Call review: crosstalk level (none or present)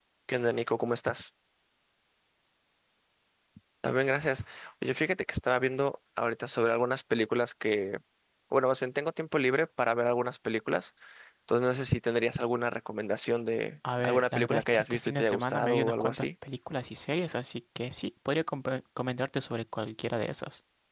present